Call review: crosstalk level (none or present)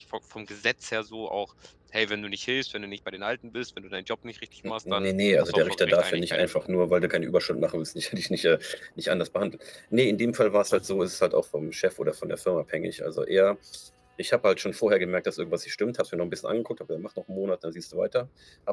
present